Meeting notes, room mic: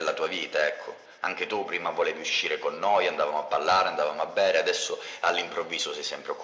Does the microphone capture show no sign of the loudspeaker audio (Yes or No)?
No